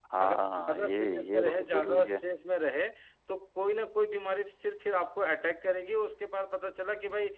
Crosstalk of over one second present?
Yes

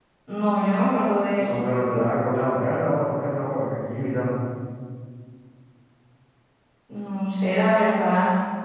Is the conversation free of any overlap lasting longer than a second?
Yes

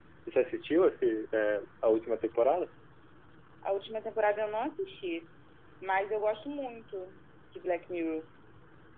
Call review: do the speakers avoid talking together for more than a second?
Yes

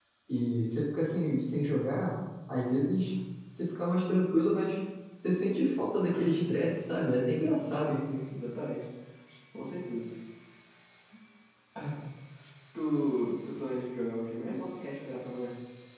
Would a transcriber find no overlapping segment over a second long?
Yes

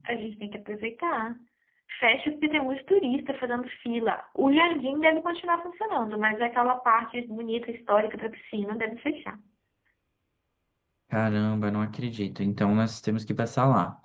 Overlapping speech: No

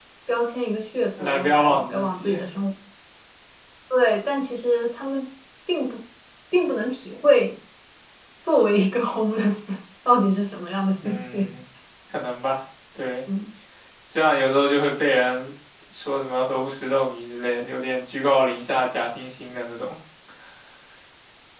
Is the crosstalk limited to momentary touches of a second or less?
No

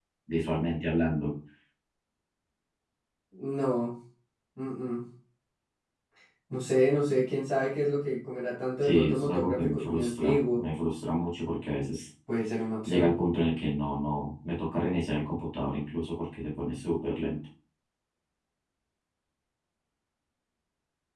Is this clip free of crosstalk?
No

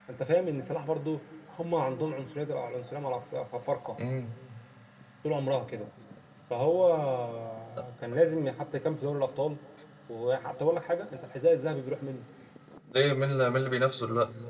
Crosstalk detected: No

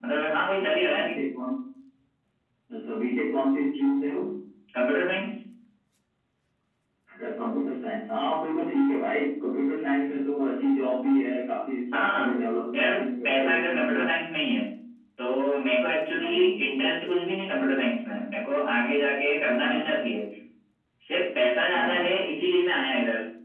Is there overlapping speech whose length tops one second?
Yes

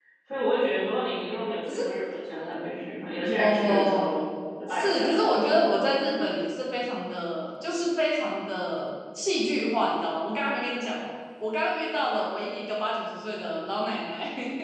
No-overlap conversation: No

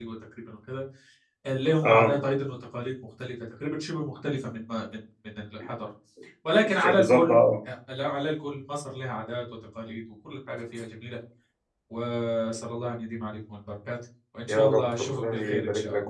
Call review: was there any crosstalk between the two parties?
Yes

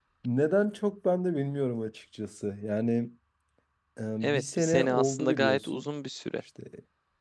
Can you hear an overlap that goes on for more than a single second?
Yes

